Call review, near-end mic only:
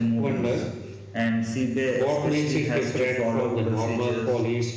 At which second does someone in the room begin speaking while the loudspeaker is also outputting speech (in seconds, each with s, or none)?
none